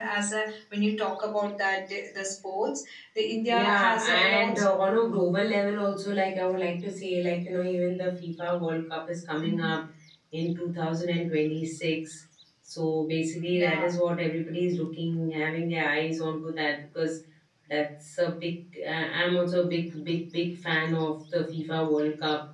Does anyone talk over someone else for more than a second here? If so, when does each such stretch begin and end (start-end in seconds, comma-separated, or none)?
3.5-4.8